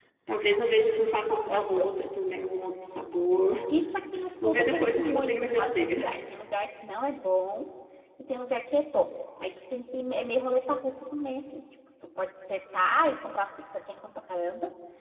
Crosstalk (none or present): present